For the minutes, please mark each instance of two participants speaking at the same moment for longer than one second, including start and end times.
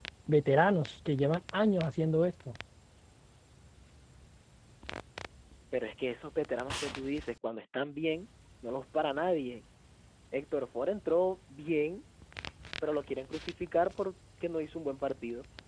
none

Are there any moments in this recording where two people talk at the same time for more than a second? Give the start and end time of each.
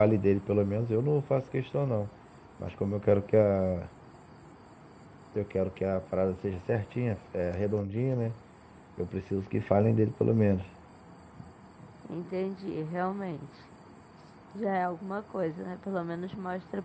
none

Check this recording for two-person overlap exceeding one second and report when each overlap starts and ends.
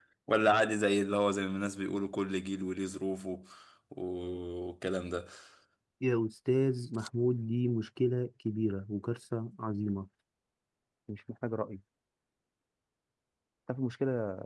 none

